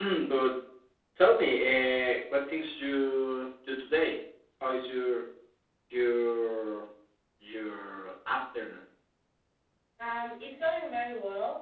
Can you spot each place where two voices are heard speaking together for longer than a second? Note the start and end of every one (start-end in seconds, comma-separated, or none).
none